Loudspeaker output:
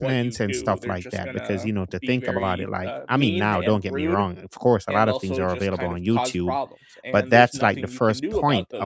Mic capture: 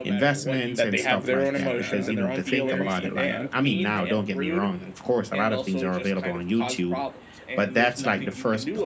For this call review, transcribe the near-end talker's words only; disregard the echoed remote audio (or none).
that they have their own emotions and their own feelings and